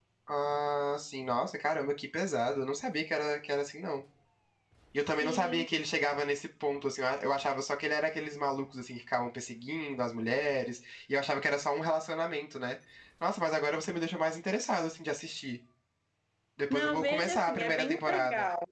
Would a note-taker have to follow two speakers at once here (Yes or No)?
Yes